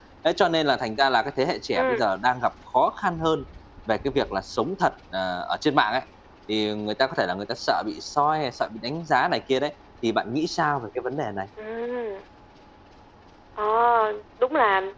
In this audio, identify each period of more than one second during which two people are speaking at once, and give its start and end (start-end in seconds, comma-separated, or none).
none